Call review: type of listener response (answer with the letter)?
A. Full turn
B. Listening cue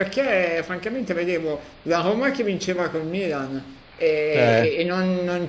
B